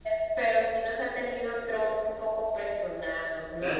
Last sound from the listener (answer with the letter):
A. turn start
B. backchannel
A